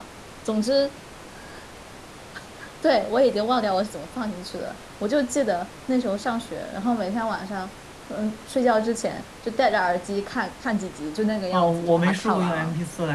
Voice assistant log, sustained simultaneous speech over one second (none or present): present